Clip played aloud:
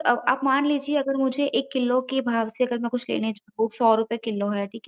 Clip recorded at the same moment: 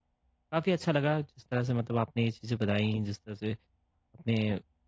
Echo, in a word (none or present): none